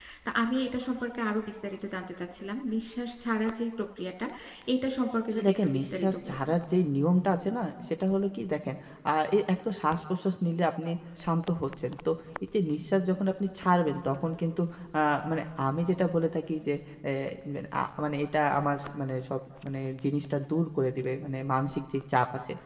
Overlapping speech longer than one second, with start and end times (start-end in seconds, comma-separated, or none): 5.3-6.5